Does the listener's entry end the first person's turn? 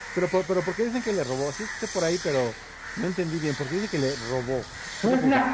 Yes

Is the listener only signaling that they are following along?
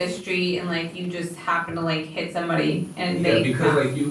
No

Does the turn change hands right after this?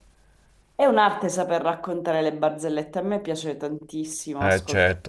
Yes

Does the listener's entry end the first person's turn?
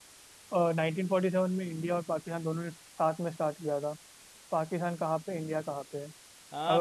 Yes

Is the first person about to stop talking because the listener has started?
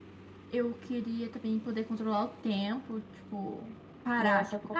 Yes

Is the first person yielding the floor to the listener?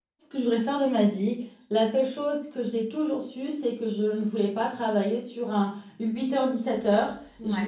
No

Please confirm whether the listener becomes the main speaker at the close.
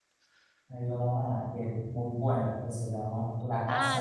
Yes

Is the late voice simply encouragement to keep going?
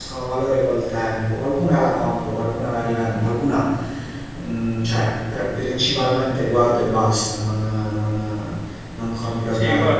No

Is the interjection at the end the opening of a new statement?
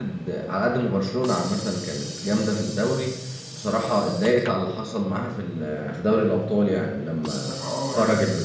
Yes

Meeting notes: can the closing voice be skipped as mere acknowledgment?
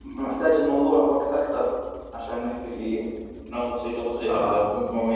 Yes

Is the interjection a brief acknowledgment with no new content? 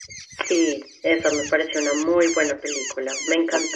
Yes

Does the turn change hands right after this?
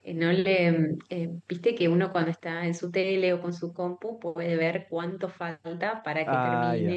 No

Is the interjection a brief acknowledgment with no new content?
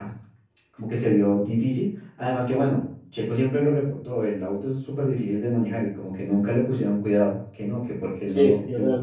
No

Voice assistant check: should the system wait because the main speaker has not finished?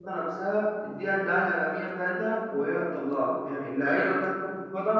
Yes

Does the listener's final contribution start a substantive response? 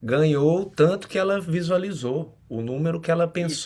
No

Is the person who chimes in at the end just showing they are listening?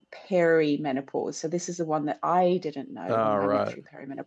Yes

